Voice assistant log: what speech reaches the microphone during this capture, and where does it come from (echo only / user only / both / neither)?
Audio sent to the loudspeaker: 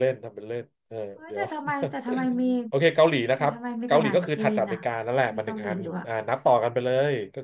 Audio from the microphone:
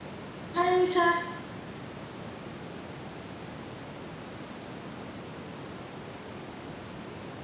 user only